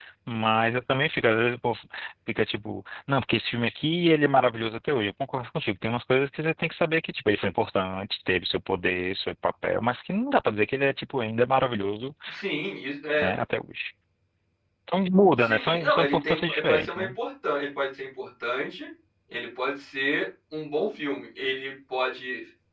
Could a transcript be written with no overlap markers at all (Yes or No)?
No